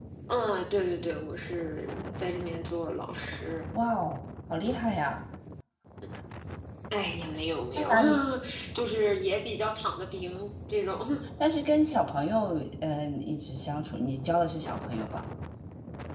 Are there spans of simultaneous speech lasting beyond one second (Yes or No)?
No